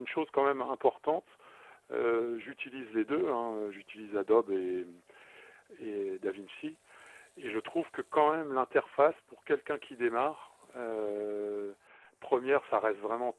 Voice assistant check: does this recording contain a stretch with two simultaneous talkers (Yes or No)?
No